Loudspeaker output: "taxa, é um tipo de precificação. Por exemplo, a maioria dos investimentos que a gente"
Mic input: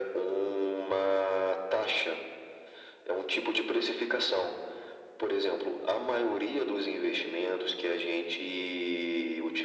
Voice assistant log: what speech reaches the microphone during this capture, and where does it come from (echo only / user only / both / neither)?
echo only